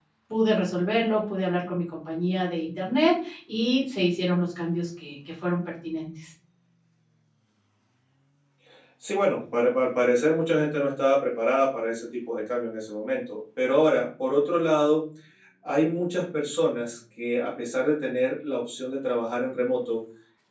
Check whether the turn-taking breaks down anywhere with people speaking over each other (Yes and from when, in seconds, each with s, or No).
No